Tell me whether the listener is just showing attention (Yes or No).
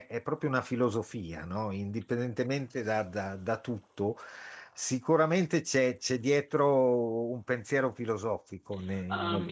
No